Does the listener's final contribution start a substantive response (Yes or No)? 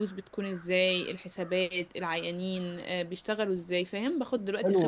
Yes